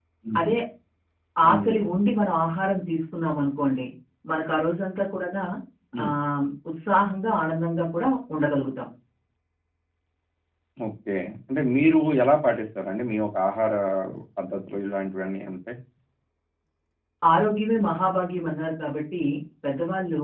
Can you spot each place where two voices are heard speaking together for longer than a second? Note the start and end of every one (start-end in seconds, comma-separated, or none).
none